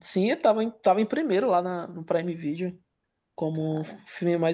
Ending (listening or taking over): listening